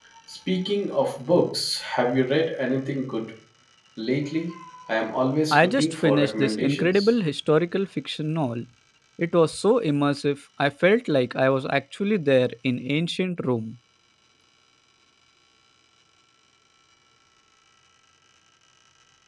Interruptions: present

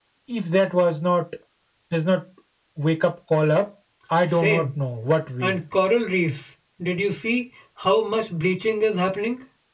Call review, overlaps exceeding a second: none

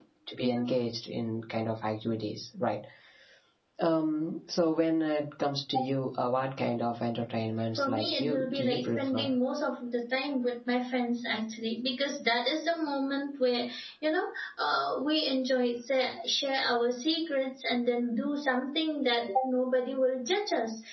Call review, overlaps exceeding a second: present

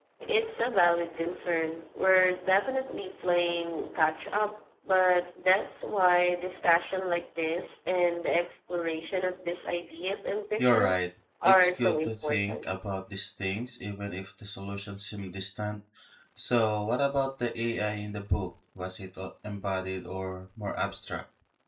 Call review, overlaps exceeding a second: present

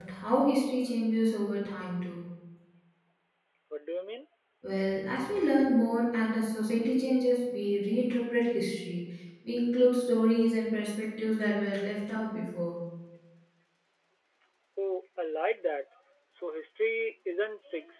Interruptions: none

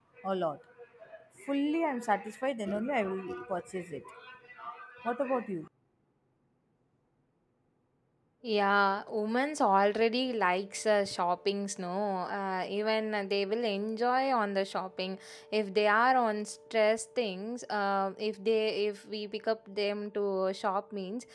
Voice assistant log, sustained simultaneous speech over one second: none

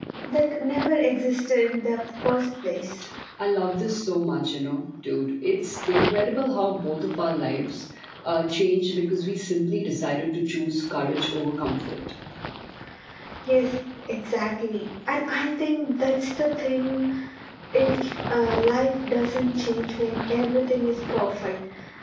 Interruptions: none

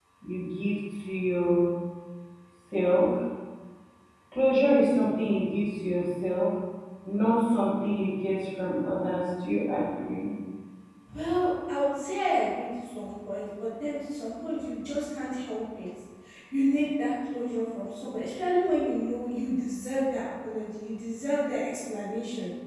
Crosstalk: none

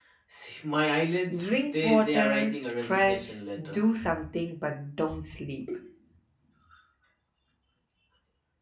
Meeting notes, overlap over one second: present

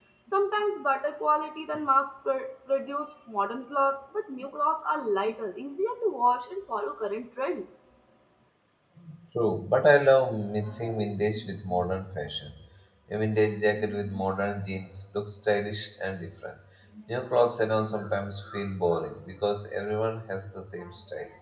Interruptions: none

